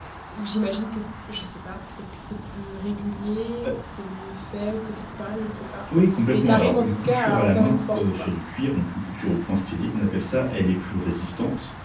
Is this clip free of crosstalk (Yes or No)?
No